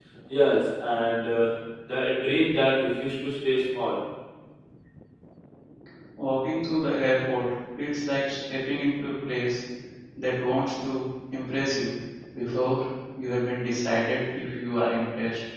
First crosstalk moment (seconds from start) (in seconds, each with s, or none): none